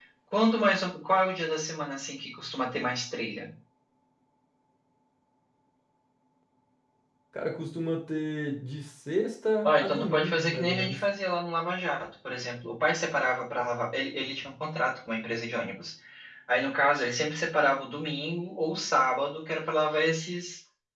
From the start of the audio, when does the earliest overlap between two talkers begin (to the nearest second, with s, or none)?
10 s